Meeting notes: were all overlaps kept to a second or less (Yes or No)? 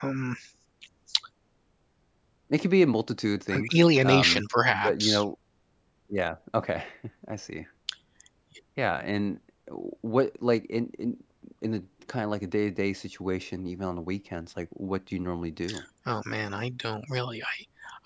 No